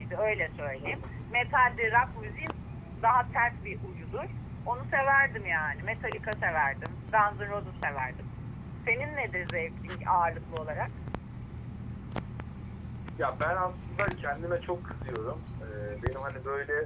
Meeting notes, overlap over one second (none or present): none